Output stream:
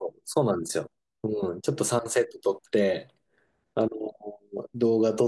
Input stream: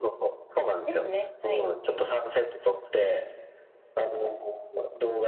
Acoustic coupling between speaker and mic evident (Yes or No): Yes